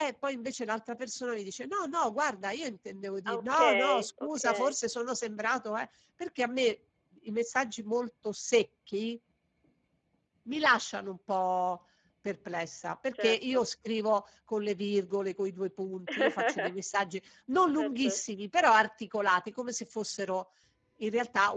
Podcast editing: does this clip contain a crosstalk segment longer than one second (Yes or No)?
Yes